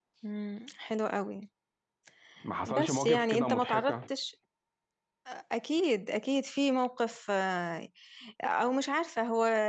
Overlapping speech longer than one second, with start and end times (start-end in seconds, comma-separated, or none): 2.7-3.9